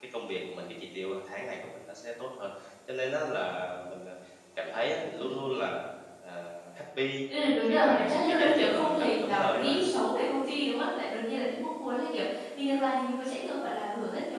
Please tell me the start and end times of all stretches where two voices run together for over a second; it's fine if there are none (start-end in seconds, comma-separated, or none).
7.7-9.8